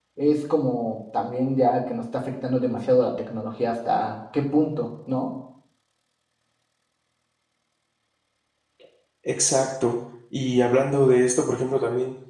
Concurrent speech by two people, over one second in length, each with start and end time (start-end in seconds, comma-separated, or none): none